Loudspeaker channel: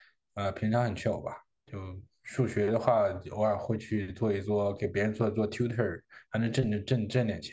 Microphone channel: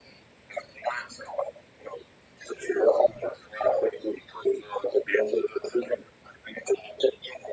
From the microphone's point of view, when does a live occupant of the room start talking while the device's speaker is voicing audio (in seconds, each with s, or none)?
none